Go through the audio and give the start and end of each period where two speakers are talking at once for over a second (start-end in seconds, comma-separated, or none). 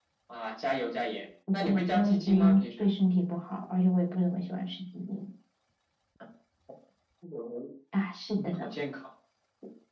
1.5-2.9